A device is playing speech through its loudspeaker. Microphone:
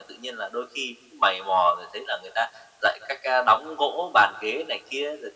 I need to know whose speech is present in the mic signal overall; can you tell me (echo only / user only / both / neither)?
echo only